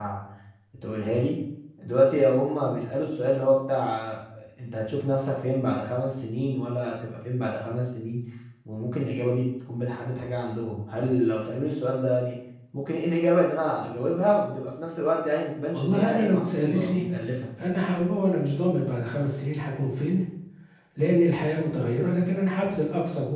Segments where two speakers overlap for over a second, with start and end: 15.7-17.0

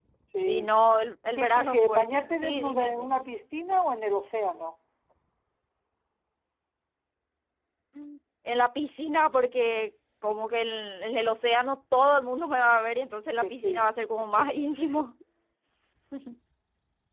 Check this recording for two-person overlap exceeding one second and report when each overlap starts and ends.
1.4-3.2

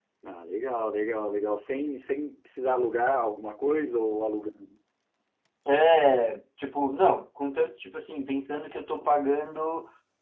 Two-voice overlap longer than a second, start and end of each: none

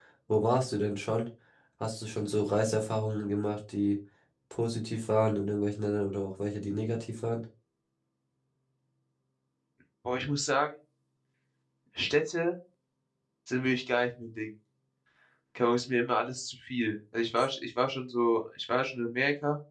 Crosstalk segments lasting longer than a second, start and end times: none

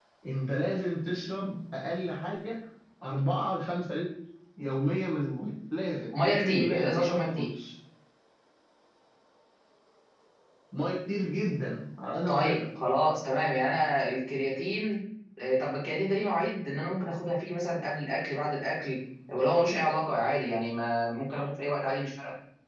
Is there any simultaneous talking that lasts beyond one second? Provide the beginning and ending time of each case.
6.1-7.5

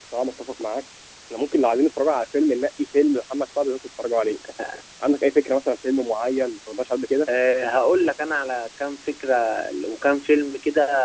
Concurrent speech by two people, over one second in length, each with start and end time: none

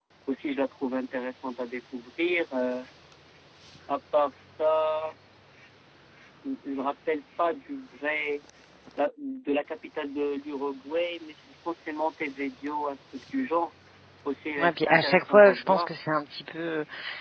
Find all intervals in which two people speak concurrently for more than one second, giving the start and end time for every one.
14.6-15.9

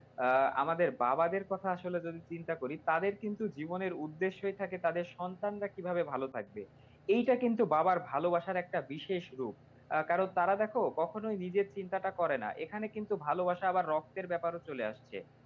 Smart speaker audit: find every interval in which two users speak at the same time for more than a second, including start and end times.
none

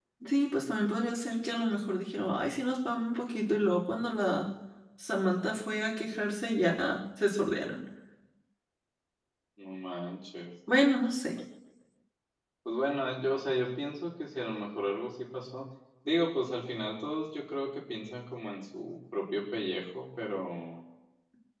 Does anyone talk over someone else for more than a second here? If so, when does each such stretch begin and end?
none

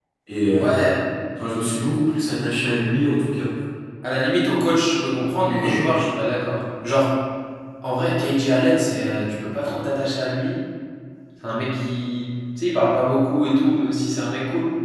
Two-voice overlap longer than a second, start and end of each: none

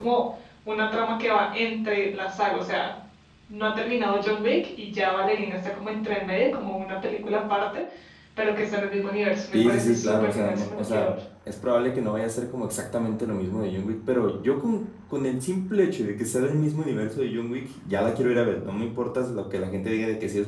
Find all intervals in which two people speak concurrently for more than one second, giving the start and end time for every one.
9.5-11.1

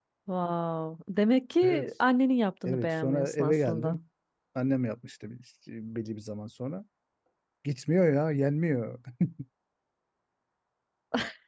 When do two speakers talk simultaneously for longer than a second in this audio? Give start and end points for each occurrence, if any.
2.6-4.0

